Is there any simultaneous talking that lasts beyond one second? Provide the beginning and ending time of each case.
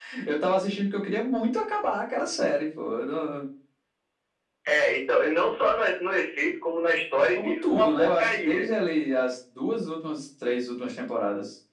7.3-8.7

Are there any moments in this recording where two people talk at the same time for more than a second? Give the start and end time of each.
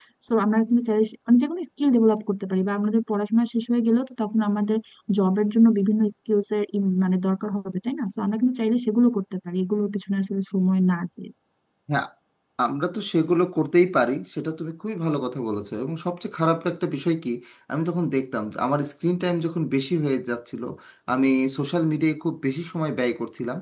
none

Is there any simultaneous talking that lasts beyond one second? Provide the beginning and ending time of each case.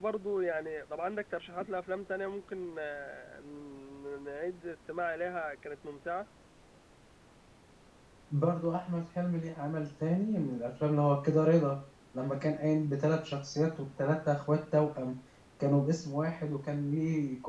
none

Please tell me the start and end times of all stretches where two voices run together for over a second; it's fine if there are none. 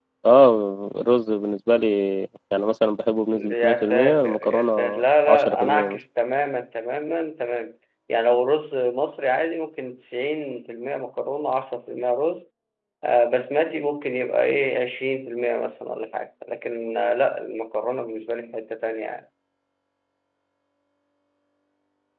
3.5-6.0

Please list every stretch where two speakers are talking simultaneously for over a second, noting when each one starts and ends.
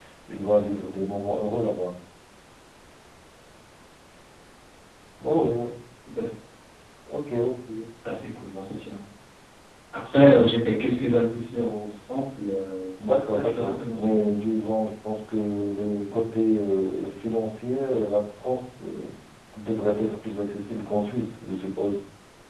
13.0-14.2

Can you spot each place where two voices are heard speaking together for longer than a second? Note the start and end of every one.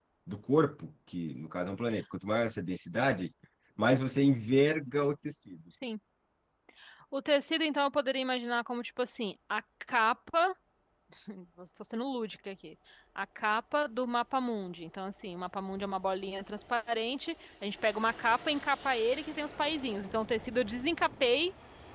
none

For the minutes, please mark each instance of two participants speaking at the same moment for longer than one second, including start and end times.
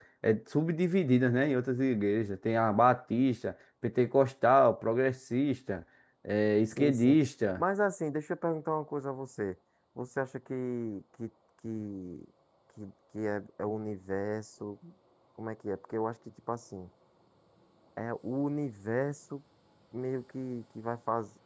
none

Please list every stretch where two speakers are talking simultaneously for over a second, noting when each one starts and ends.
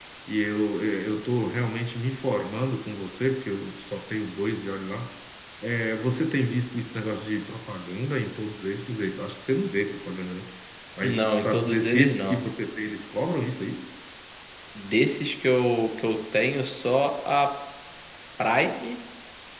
11.0-12.4

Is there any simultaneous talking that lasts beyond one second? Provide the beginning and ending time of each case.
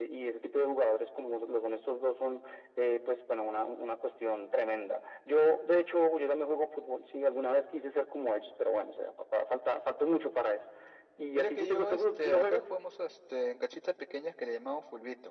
11.3-12.6

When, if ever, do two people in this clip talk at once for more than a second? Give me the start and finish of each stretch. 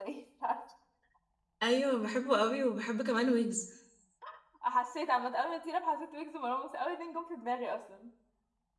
none

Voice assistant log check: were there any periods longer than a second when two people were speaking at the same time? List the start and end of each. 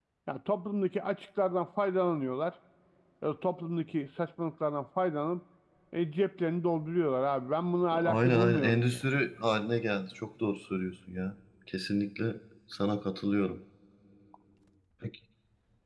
7.9-9.1

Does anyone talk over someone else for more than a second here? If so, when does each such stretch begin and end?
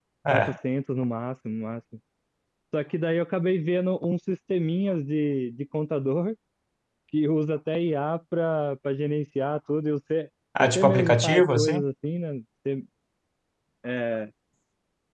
10.6-11.8

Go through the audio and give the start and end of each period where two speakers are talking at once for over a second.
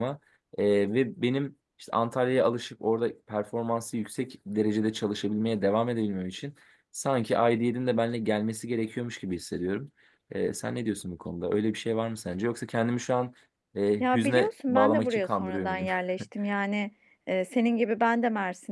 14.0-15.8

